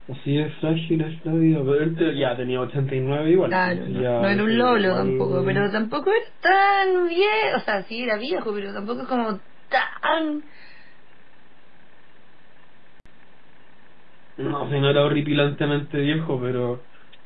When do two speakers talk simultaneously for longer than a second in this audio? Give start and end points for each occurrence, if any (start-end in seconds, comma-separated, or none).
3.5-5.7